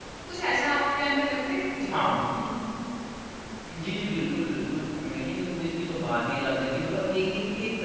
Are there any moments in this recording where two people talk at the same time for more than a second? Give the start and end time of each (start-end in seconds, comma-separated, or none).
none